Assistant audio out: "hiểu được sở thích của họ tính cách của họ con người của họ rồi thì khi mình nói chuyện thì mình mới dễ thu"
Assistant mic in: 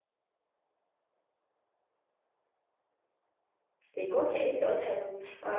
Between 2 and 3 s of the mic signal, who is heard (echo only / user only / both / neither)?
neither